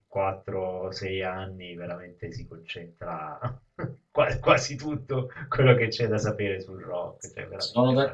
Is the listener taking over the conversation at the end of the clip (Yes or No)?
Yes